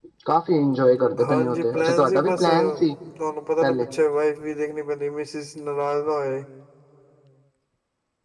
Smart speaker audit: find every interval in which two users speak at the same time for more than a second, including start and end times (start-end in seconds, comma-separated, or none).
1.3-2.9